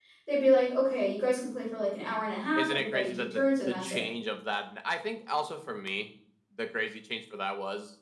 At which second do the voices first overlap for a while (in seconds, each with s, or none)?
2.6 s